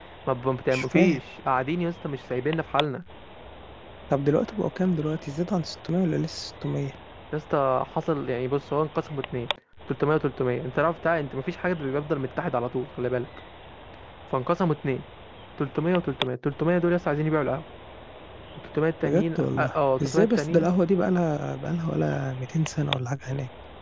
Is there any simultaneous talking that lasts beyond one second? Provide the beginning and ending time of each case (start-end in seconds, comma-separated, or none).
19.0-20.7